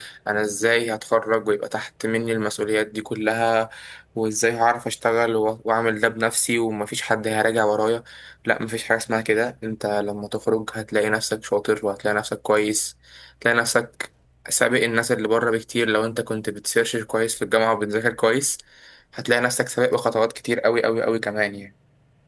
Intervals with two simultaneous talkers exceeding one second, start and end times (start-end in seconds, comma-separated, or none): none